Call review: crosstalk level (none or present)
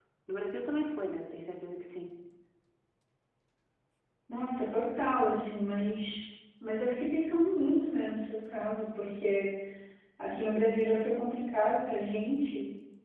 none